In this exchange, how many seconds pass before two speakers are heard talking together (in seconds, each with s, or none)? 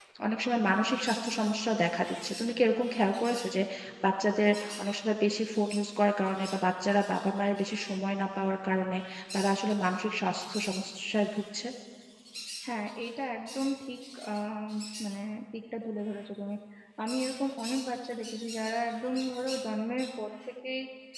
none